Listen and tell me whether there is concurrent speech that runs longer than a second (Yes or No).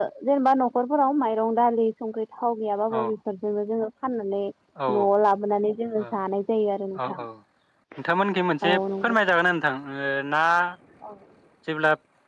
No